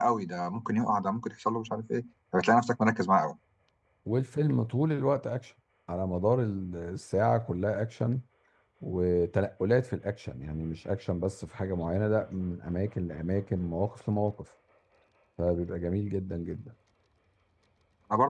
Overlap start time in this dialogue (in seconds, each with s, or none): none